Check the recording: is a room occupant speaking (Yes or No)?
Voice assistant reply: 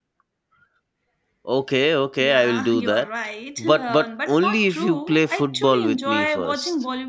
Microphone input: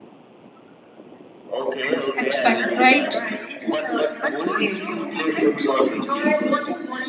Yes